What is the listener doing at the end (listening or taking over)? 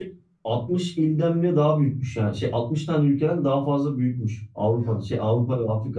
listening